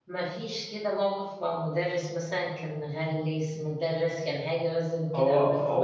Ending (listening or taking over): taking over